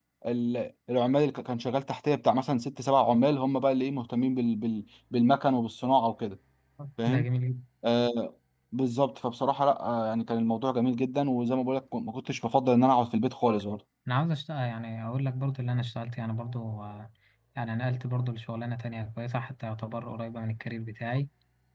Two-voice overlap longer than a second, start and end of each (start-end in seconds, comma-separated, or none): none